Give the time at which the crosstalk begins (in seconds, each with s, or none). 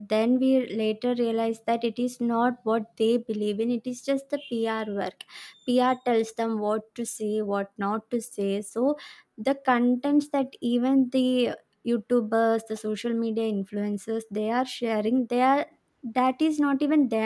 none